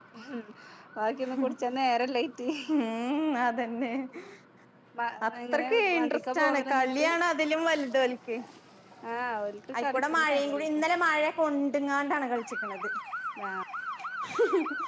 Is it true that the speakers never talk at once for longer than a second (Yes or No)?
No